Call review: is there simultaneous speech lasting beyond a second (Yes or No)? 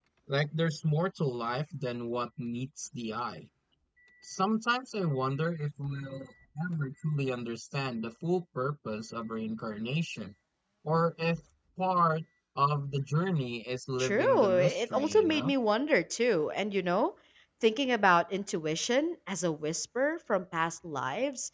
Yes